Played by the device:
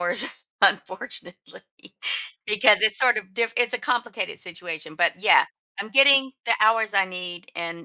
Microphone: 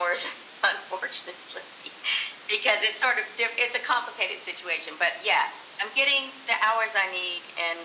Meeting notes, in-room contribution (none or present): none